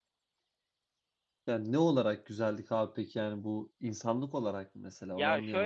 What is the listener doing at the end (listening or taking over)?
taking over